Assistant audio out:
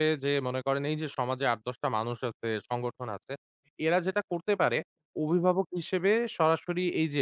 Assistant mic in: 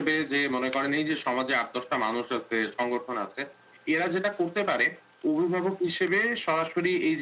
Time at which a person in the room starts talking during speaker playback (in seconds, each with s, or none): none